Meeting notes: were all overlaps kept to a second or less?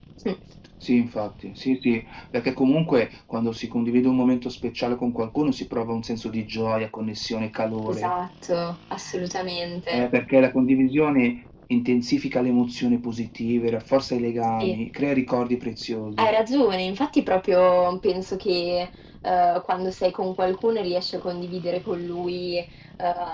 Yes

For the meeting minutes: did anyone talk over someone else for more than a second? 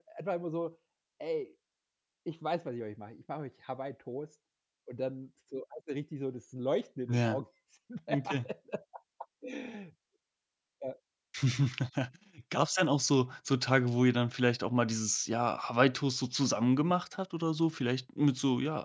No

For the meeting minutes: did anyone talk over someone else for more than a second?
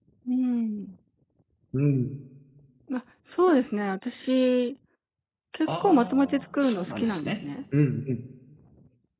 Yes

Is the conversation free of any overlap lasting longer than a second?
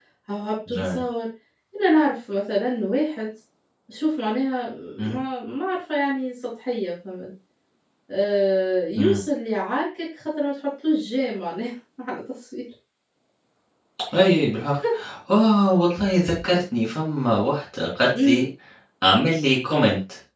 Yes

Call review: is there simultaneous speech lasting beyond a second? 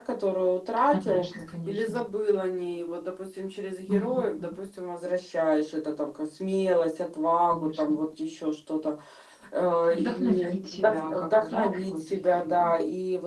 Yes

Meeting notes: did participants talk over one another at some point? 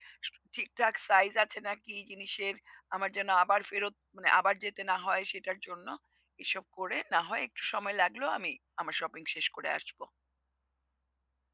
No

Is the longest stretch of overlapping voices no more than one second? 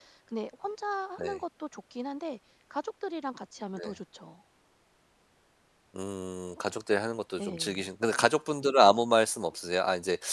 Yes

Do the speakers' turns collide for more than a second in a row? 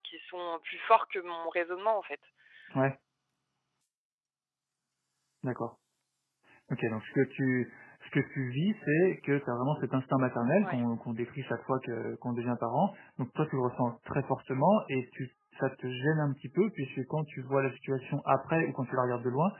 No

